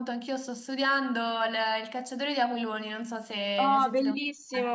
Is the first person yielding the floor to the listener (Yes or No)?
Yes